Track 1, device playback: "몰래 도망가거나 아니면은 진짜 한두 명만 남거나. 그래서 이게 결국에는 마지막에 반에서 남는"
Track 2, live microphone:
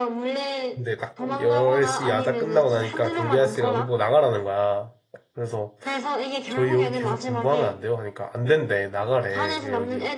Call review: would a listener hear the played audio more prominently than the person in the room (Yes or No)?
No